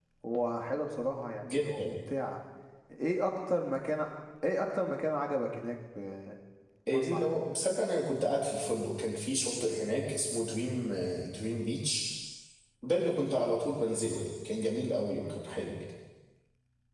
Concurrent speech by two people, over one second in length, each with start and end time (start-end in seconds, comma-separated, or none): none